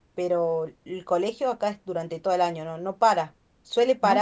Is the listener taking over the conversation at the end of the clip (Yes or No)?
No